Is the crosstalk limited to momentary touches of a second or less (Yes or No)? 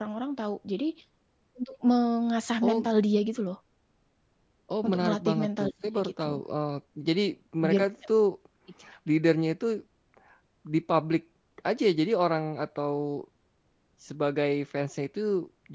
No